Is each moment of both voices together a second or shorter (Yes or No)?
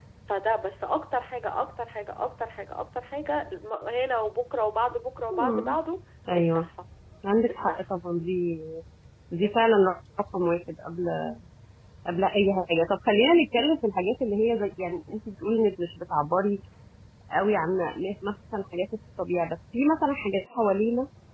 Yes